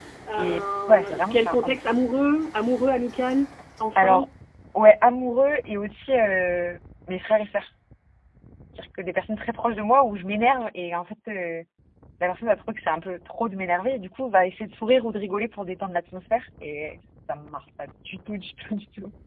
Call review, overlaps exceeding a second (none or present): present